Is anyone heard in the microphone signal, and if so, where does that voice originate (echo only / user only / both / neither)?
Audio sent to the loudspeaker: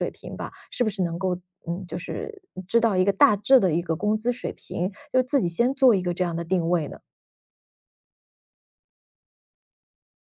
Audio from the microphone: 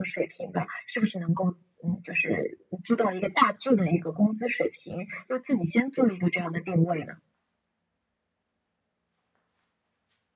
echo only